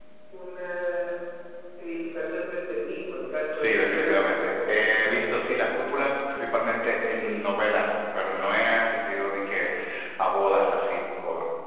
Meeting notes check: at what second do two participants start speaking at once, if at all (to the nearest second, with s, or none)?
4 s